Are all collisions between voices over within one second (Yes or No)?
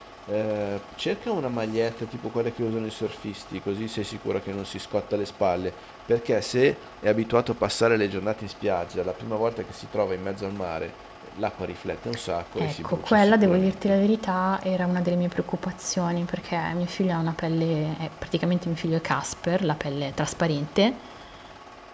No